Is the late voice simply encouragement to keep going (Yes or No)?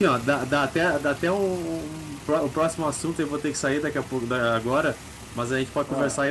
Yes